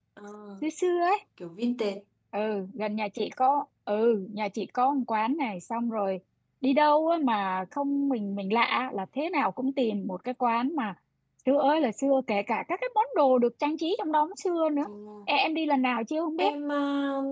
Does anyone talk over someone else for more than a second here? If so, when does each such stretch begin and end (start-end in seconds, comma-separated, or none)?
none